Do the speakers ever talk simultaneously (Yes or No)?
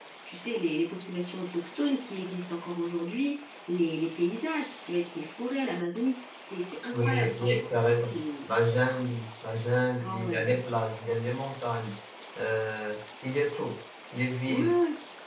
Yes